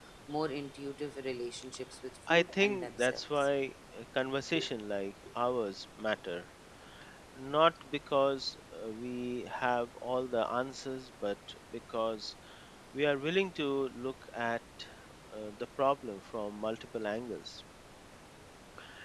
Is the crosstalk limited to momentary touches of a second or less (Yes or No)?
No